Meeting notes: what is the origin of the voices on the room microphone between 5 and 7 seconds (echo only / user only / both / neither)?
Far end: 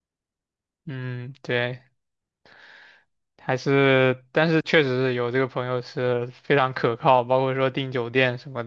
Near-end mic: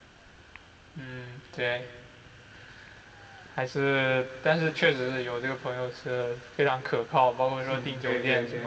echo only